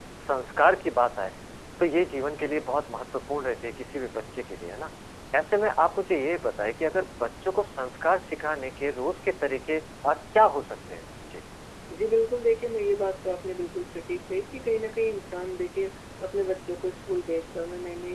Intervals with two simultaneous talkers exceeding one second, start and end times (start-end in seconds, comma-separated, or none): none